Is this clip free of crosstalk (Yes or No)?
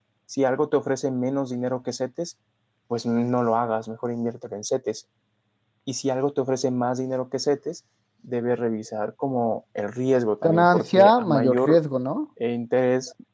No